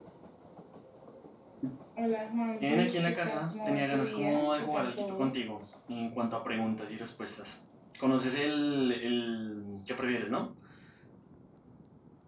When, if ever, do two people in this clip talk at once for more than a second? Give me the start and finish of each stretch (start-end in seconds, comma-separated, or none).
2.6-5.3